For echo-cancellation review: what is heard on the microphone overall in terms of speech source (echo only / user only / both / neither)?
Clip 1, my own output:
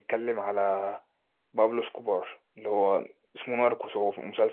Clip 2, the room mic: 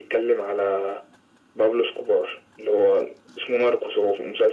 echo only